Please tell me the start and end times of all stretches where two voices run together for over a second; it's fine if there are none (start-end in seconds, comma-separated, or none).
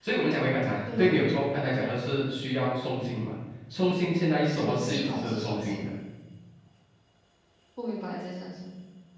4.4-5.9